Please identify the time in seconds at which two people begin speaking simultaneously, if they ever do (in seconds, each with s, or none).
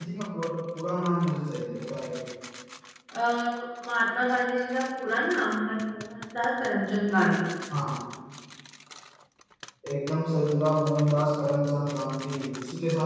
none